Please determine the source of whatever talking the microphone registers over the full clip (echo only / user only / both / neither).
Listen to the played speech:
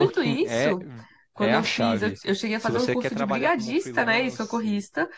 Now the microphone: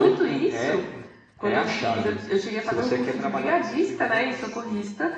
echo only